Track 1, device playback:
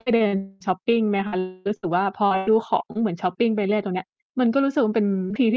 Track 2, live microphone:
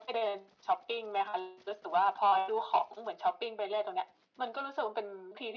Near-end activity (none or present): none